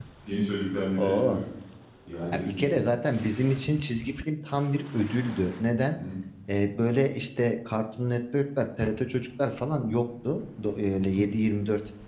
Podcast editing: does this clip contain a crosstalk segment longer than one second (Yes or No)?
No